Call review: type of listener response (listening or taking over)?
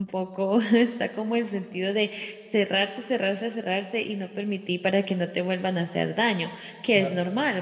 listening